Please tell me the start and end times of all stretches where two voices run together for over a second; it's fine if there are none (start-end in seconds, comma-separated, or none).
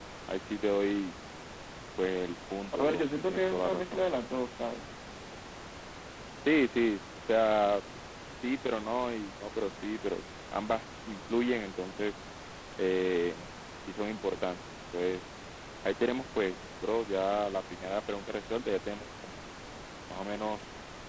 2.8-4.0